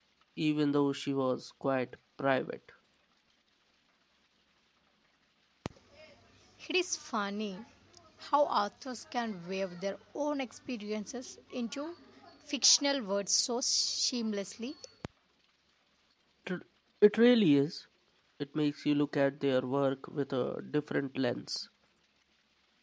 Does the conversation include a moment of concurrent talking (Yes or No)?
No